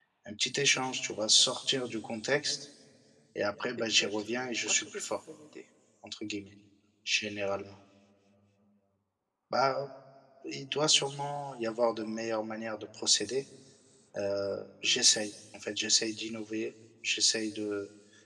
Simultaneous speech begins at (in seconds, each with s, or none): 3.9 s